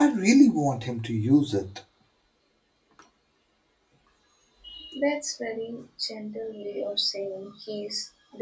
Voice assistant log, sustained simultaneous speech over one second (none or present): none